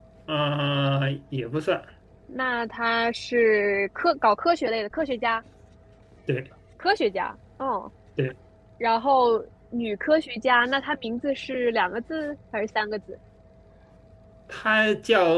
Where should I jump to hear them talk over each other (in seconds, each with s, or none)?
none